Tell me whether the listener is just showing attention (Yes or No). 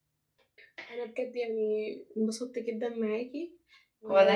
Yes